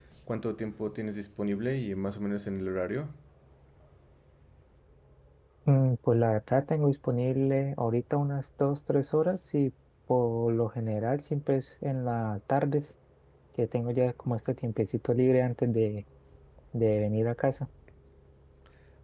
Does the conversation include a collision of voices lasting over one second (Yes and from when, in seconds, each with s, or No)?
No